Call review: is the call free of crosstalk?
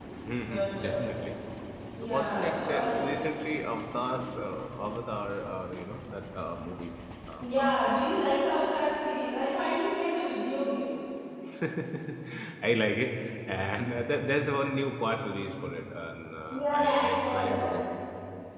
No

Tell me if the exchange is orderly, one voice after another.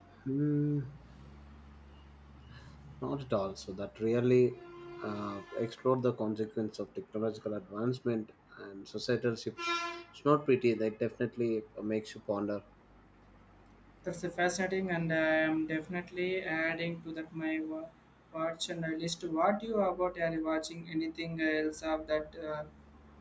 Yes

